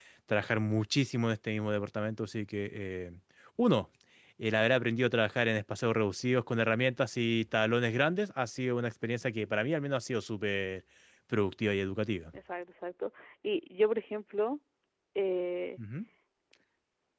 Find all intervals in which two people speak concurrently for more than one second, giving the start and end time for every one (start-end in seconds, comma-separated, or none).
none